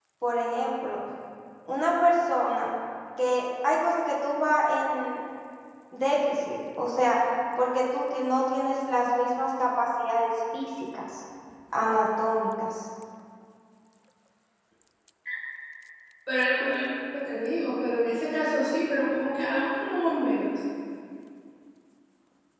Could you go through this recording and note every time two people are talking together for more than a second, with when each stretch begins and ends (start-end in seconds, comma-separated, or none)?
none